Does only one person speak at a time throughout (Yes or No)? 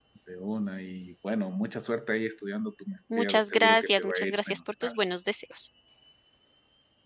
No